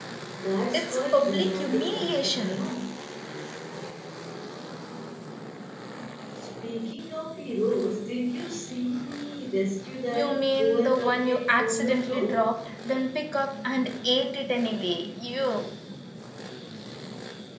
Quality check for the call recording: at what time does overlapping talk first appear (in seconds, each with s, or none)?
0.7 s